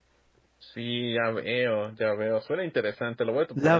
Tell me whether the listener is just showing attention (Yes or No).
No